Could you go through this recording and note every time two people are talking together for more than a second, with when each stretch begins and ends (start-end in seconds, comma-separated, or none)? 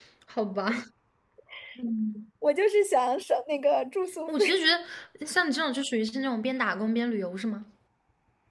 none